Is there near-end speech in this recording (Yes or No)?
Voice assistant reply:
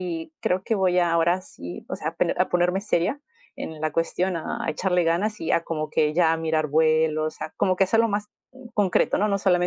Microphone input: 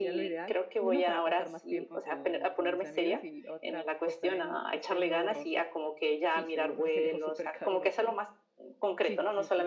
Yes